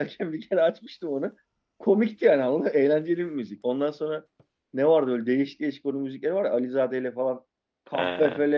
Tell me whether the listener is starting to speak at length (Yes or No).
No